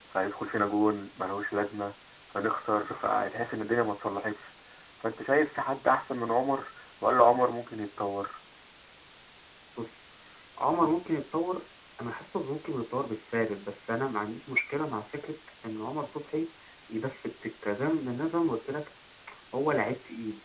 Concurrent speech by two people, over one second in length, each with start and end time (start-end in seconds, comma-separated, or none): none